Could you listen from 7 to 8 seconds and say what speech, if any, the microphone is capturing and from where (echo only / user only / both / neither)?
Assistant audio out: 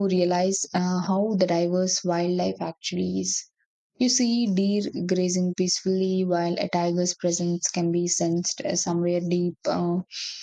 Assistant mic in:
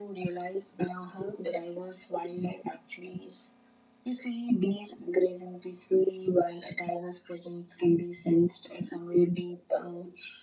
echo only